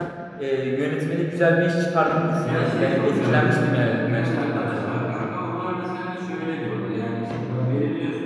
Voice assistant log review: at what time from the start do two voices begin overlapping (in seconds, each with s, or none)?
2.4 s